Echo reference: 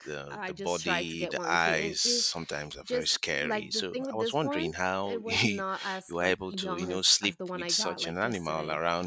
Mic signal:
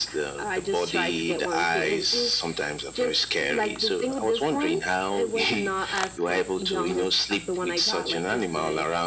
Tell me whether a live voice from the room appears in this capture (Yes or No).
No